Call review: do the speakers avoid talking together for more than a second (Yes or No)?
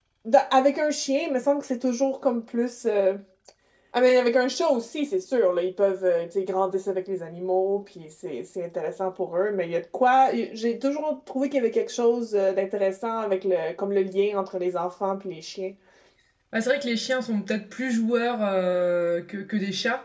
Yes